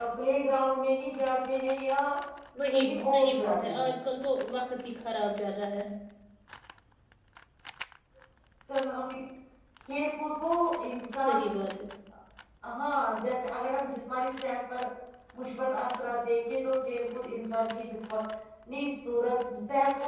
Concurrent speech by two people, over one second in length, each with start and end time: 2.7-3.9

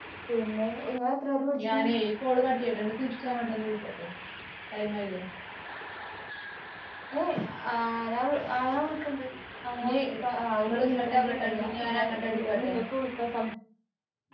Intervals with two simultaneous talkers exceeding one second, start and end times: 10.6-12.0

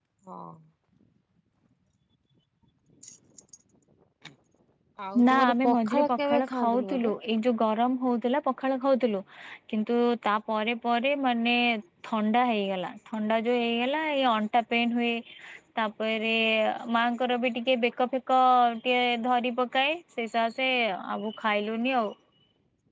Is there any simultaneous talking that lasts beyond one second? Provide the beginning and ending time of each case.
5.3-7.1

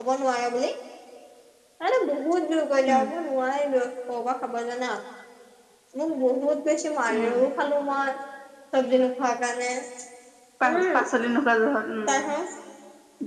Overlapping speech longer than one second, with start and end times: none

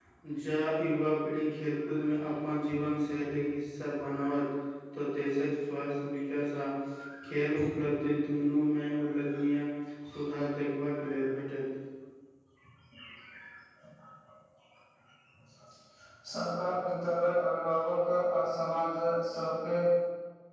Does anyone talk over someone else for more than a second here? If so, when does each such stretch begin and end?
none

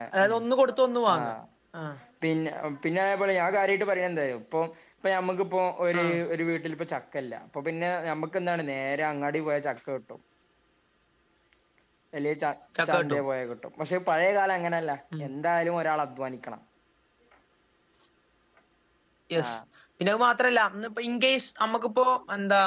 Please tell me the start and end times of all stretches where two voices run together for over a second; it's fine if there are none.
none

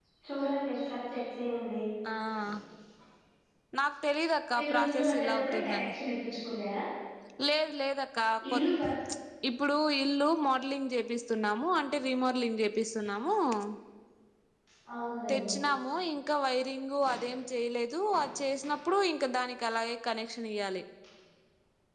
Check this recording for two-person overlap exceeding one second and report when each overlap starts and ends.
4.6-5.9

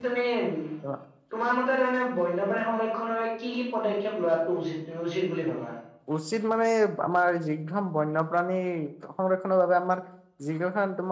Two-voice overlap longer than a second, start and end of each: none

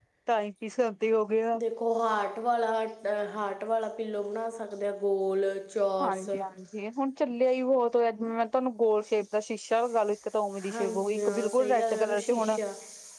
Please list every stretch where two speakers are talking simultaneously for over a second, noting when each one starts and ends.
10.7-12.6

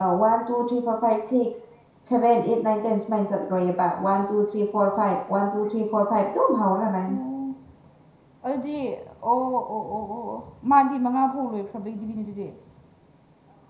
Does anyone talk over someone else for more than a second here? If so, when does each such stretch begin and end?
none

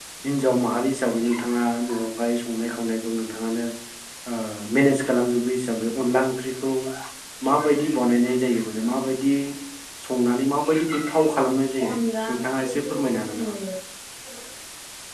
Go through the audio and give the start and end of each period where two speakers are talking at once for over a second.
12.3-13.5

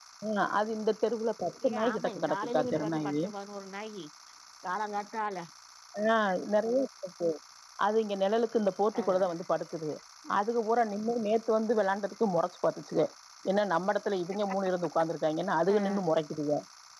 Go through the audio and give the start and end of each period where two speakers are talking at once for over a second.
1.7-3.2

